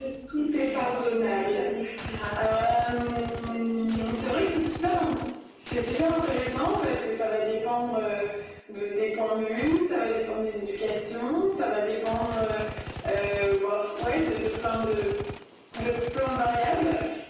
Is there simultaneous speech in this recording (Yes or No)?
Yes